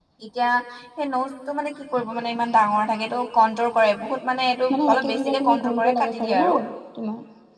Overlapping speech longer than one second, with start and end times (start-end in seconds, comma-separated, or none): 4.7-6.4